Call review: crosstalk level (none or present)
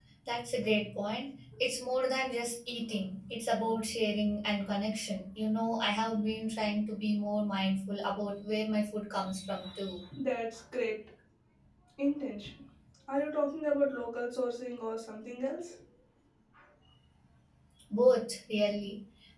none